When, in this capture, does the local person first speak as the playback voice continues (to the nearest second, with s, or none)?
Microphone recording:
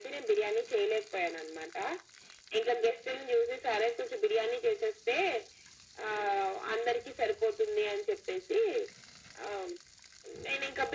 none